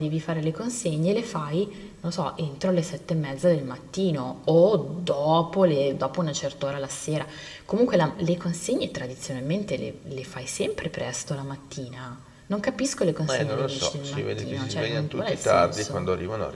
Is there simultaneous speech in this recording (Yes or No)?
Yes